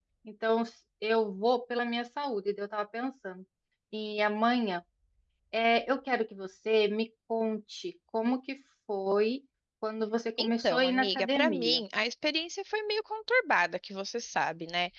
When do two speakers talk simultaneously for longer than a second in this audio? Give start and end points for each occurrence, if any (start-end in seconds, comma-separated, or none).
10.4-11.8